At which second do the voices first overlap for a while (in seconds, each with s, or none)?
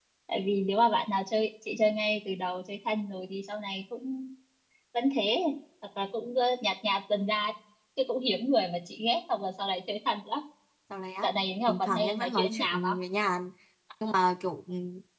11.7 s